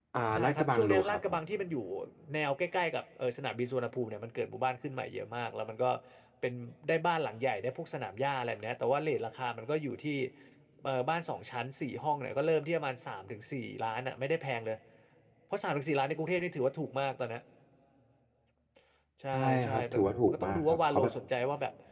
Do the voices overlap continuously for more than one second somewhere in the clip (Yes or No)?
Yes